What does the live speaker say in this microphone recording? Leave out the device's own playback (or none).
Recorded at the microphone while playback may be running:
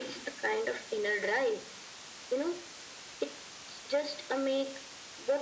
none